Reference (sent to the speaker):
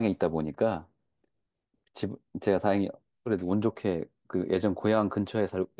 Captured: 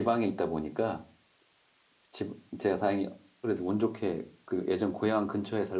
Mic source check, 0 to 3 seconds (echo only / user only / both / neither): echo only